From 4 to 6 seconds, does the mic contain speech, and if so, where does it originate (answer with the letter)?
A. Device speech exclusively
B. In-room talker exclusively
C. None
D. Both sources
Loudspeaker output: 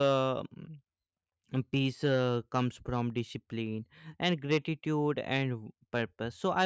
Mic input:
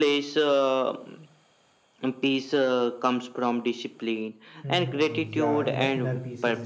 D